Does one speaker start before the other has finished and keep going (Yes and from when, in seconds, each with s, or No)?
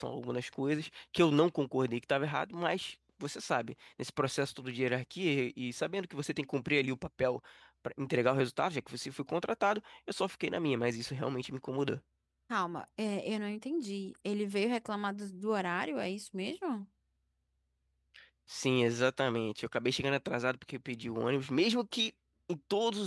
No